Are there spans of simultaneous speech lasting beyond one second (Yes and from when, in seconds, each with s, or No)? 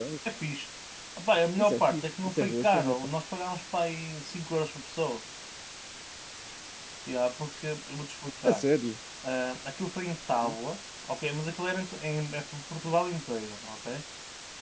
Yes, from 1.6 s